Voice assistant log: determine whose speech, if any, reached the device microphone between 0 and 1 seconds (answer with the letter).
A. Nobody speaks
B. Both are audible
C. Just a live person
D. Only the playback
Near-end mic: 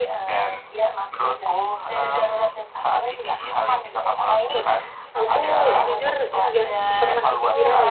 D